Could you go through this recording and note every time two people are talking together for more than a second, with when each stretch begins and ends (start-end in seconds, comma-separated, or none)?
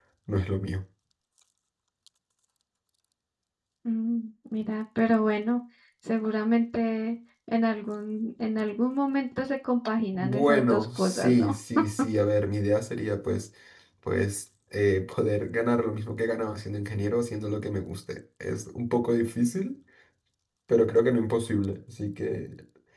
10.1-11.5